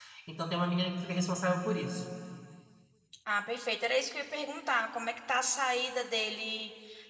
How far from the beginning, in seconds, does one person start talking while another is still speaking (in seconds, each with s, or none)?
none